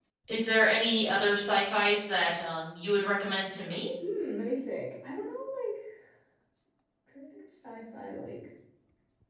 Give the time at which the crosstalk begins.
none

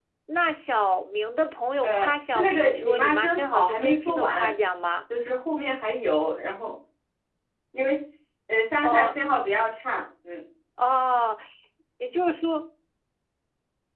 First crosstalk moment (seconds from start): 1.8 s

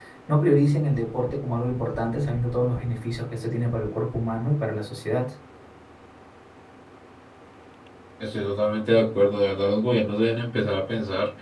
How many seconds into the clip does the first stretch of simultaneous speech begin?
none

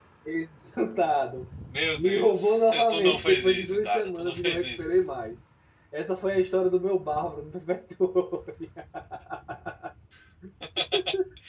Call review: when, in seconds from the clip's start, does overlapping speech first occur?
1.9 s

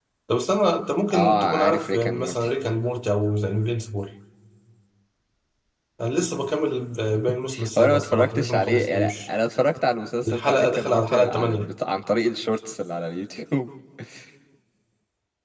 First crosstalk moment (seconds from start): 1.1 s

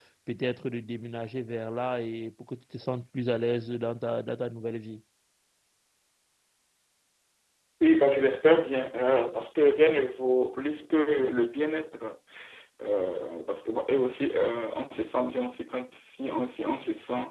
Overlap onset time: none

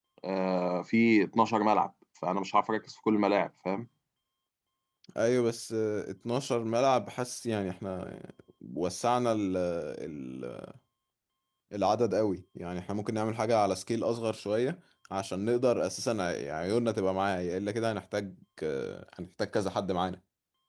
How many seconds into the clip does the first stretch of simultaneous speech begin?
none

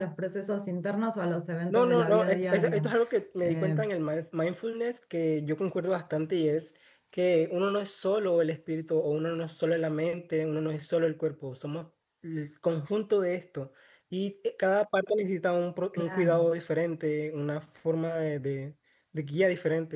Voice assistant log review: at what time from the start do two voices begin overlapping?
1.7 s

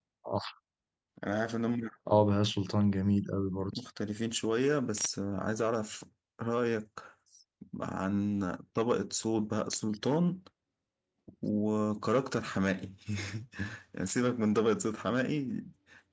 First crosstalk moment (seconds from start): none

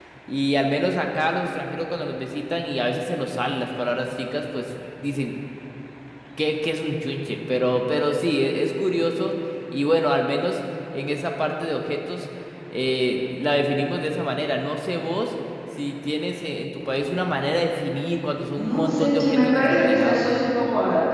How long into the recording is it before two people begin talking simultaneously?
18.6 s

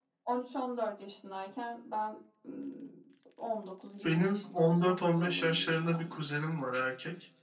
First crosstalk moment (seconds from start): 4.0 s

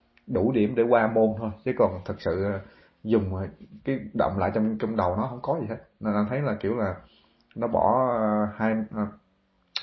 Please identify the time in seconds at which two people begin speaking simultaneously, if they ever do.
none

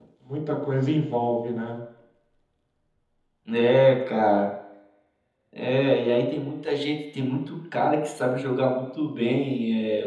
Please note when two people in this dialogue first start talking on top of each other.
none

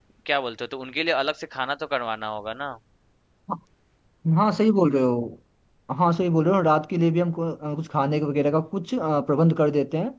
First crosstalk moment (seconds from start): none

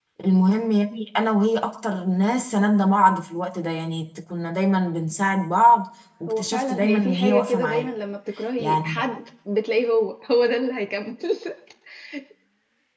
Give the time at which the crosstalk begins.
6.3 s

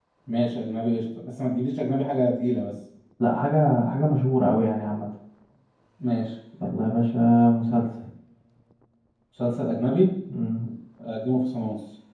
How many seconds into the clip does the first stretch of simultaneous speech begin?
none

